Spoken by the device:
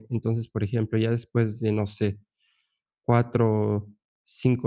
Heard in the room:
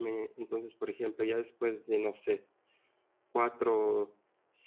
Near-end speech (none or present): none